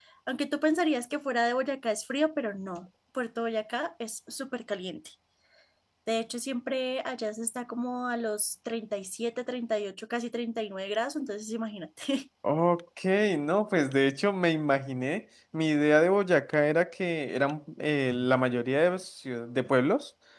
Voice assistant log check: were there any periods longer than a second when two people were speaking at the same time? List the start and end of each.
none

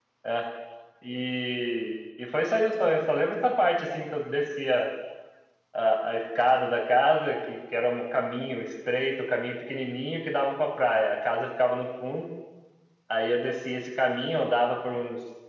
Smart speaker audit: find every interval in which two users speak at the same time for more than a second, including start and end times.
none

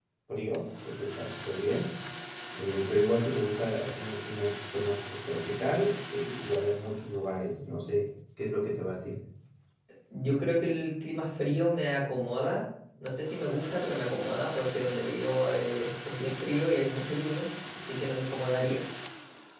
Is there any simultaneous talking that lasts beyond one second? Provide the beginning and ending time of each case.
none

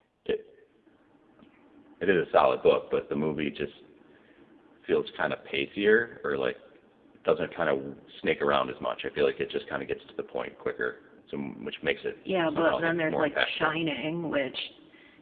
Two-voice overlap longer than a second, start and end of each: 12.4-13.7

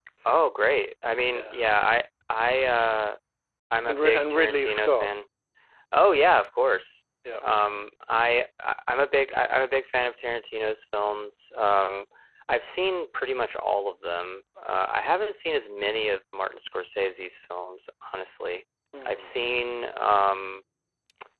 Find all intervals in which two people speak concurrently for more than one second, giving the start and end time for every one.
3.8-5.1

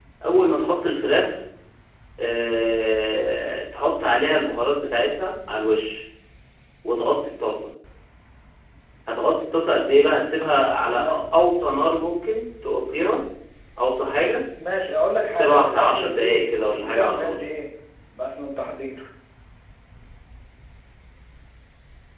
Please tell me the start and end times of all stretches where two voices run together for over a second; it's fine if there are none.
15.3-17.4

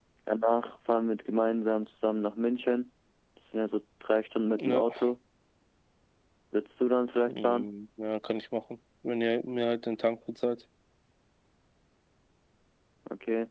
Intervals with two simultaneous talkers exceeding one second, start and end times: none

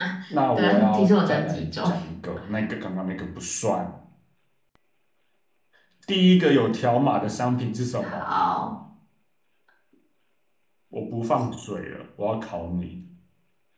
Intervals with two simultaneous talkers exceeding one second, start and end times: 0.6-1.9

